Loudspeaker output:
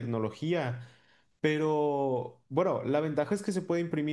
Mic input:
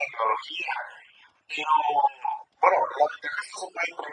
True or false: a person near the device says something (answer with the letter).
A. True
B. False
B